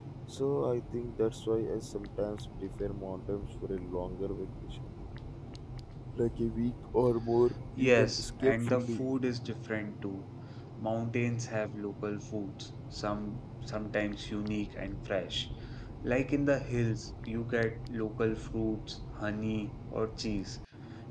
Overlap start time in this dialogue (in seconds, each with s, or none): 7.8 s